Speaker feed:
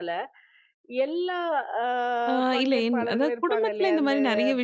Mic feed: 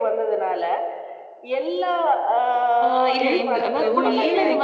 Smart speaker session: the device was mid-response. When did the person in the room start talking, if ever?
3.3 s

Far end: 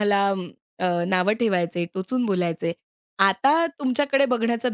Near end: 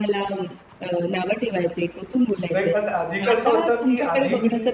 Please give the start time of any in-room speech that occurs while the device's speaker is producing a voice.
2.5 s

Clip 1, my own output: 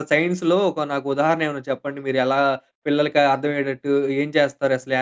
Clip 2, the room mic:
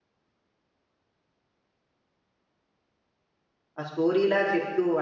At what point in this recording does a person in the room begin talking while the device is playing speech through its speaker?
3.8 s

